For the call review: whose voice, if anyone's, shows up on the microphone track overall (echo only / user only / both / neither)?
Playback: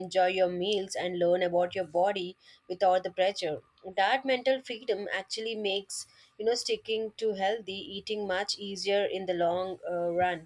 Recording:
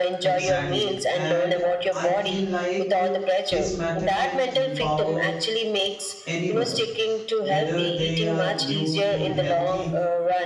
both